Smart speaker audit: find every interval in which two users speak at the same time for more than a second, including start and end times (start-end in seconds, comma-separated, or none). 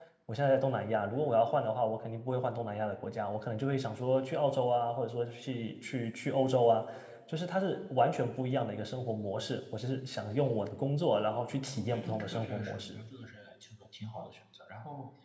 11.7-13.0